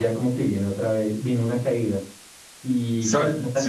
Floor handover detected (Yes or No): No